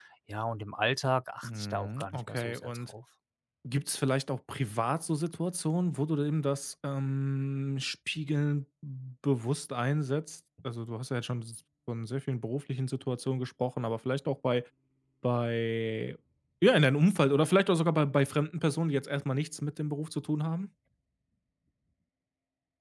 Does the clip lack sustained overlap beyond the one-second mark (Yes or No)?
No